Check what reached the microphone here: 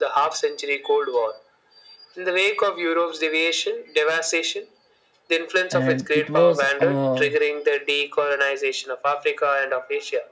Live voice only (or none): and it was a